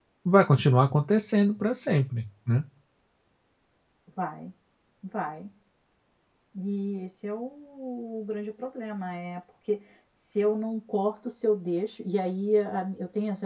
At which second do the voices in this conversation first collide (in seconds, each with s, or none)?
none